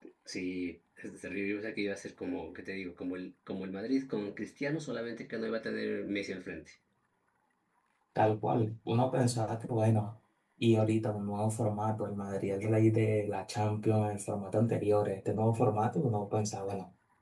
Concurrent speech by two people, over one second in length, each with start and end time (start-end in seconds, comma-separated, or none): none